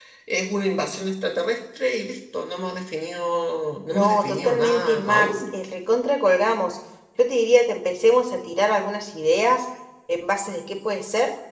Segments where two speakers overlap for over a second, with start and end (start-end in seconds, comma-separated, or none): 3.9-5.3